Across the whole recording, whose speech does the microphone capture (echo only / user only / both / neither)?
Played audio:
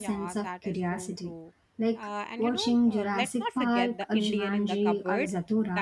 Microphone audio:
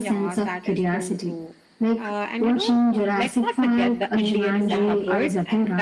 both